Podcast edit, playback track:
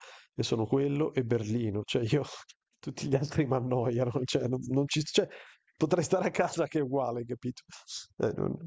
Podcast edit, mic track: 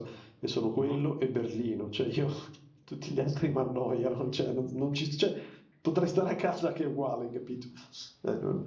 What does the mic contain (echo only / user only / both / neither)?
both